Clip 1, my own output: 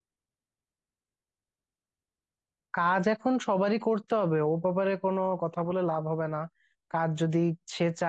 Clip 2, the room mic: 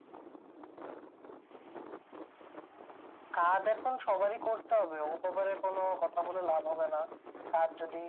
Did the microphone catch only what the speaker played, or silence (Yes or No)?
Yes